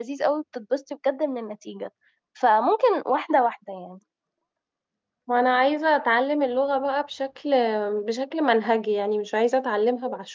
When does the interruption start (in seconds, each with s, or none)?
none